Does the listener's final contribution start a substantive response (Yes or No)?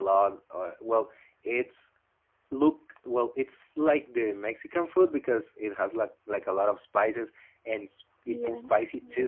No